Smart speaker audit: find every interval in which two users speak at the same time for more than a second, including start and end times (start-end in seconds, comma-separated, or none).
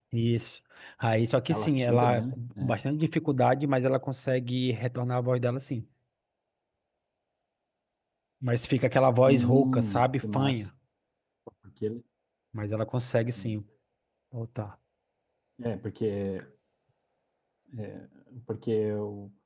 1.5-2.8, 9.3-10.6